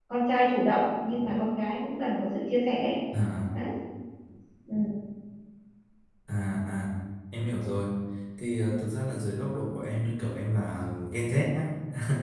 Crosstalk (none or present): none